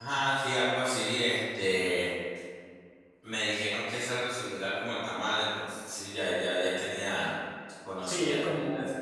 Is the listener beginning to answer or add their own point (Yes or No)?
Yes